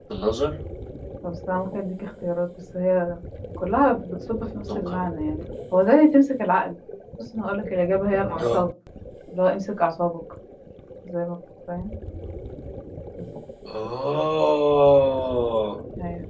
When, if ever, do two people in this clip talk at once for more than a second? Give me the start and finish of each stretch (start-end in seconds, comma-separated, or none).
none